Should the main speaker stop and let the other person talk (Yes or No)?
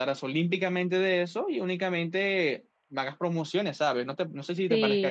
Yes